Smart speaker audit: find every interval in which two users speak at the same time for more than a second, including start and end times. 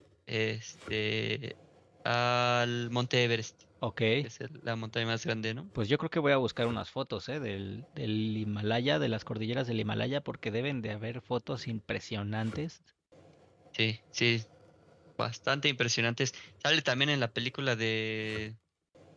none

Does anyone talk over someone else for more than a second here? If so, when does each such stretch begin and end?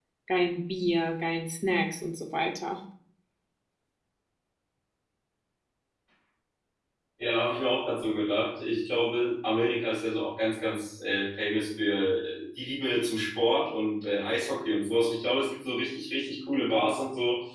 none

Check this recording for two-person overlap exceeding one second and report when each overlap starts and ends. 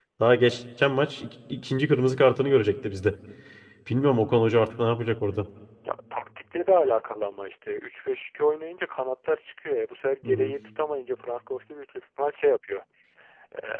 none

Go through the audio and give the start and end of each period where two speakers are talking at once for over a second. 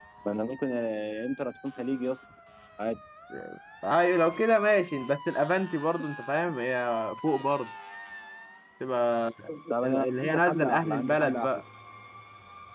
9.8-11.5

